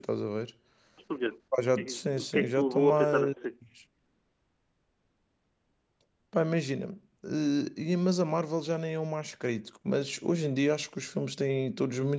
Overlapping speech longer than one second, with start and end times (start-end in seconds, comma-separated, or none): 1.8-3.3